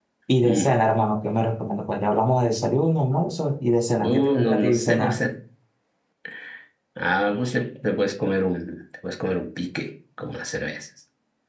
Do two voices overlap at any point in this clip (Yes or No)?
Yes